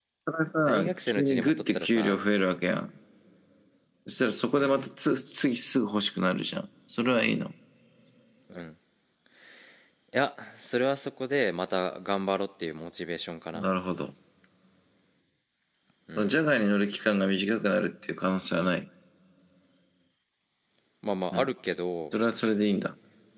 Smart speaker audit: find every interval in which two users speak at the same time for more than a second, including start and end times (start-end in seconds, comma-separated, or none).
0.6-2.2